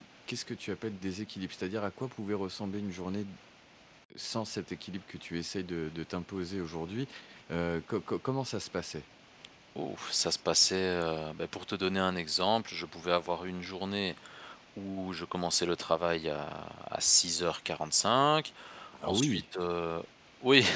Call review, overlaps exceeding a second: none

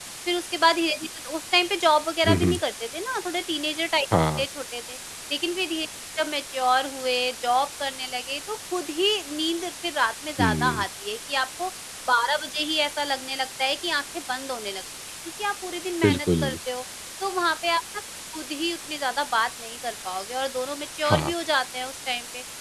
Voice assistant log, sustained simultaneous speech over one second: none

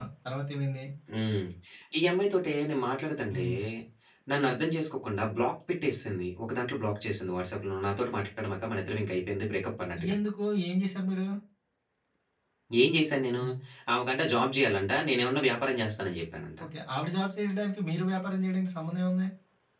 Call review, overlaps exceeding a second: none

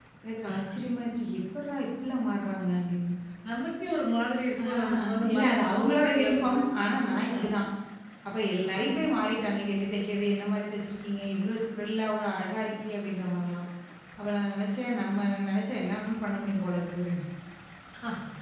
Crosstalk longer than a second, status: present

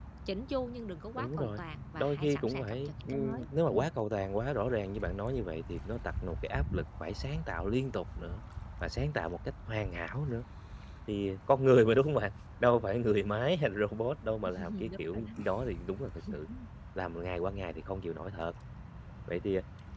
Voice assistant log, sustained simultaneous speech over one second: present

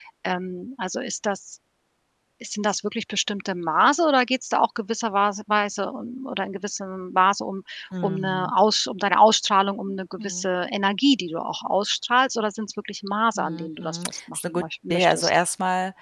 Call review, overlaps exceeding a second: present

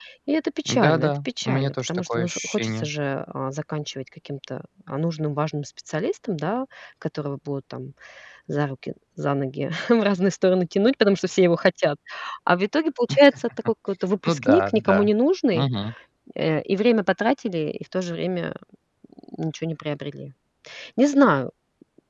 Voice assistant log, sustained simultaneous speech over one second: present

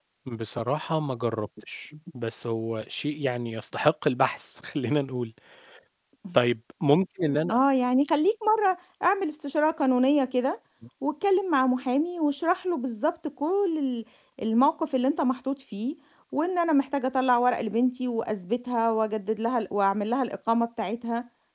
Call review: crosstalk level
none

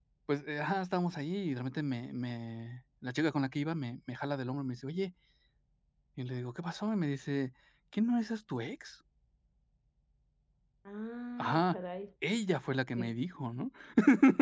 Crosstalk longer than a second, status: none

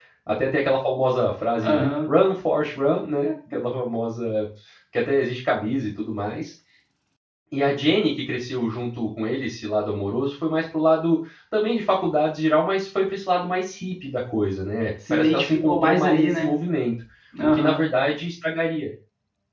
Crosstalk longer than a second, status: present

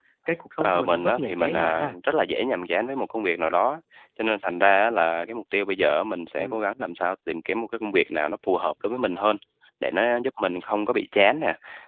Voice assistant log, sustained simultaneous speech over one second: present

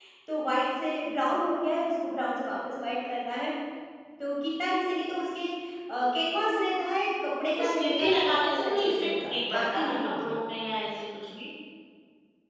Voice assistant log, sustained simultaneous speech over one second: present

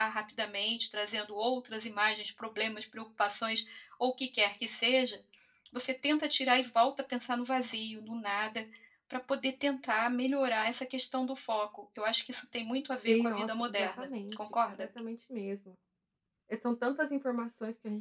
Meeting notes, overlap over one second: present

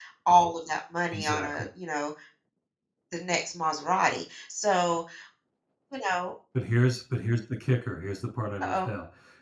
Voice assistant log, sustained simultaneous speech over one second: none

